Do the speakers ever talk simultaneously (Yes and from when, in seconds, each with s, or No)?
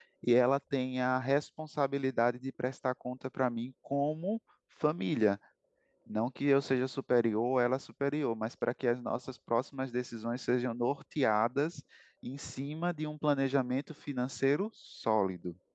No